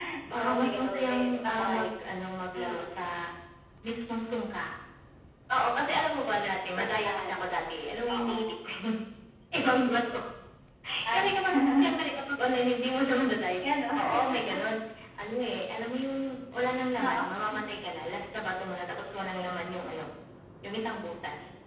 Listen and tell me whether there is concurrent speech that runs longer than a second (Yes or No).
Yes